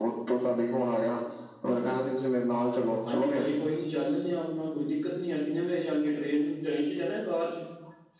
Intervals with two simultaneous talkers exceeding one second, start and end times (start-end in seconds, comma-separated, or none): none